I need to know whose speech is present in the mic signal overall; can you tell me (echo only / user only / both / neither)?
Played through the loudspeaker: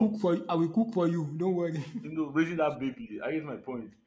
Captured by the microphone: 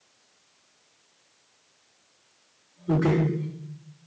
user only